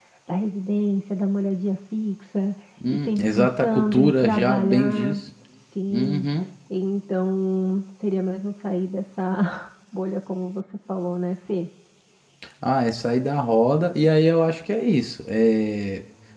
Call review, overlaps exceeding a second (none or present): present